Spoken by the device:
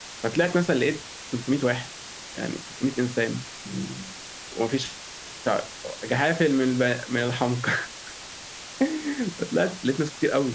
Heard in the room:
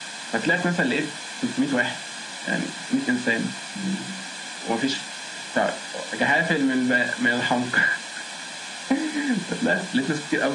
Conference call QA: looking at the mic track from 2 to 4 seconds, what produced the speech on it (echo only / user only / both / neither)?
echo only